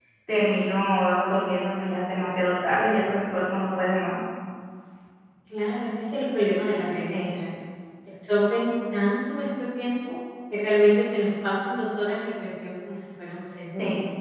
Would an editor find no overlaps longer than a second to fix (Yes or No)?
Yes